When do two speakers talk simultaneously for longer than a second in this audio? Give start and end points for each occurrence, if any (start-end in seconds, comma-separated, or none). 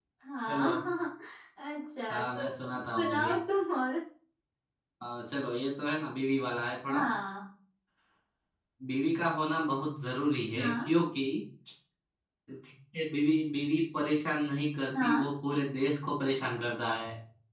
2.1-3.3